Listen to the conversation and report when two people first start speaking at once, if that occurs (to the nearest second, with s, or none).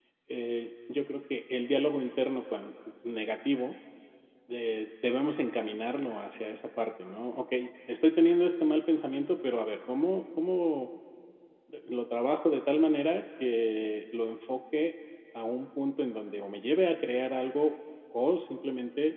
none